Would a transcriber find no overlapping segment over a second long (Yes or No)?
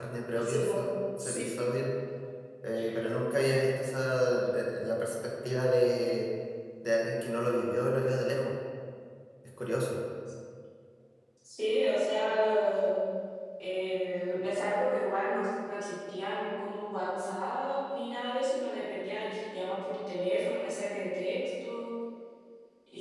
Yes